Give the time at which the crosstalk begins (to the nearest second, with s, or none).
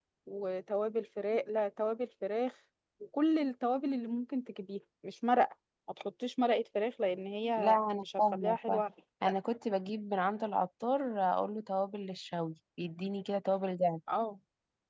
8 s